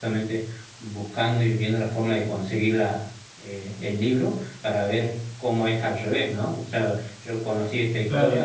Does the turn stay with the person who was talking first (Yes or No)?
Yes